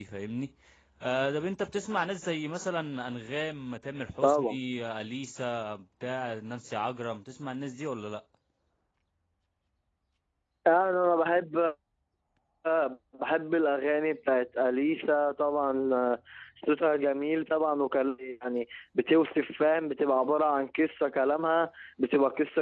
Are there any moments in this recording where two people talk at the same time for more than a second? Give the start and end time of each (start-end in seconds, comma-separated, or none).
none